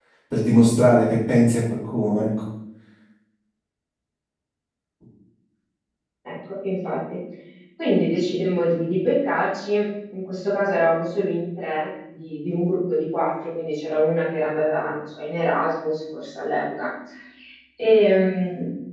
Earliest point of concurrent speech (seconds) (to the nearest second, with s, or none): none